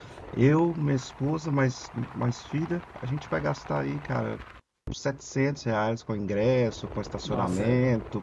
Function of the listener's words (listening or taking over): listening